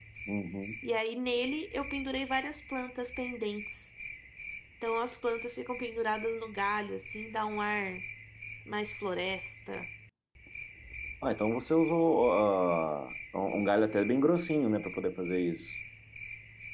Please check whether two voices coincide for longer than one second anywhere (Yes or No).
No